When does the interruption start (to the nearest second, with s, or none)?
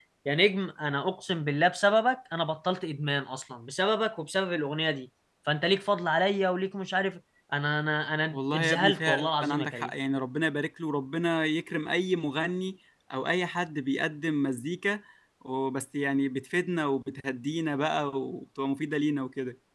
8 s